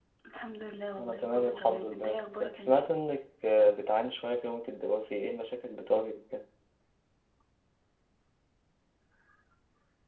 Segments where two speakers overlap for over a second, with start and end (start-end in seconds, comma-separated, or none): 1.0-2.8